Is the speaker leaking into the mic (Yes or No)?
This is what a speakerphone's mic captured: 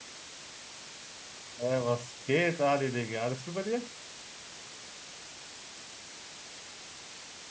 No